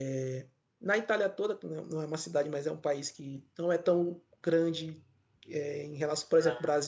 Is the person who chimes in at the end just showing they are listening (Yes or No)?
Yes